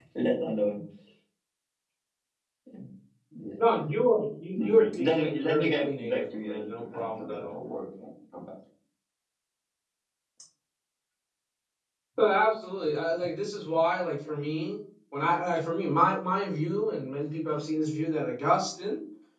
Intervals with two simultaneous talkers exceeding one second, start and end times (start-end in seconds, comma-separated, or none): 4.6-7.6